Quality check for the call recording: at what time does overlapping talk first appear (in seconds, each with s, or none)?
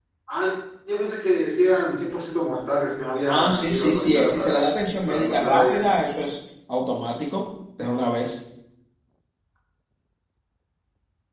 3.3 s